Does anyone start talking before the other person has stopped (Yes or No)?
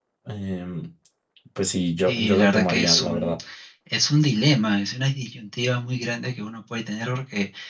Yes